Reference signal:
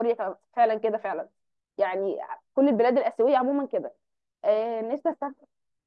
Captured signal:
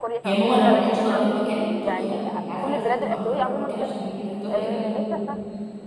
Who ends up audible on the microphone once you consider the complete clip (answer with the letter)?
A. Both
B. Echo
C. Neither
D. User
A